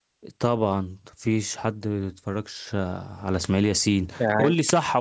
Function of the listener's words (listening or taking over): listening